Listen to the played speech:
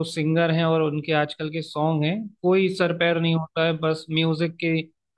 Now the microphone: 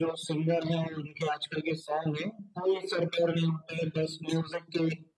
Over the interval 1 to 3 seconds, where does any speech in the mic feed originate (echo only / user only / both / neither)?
echo only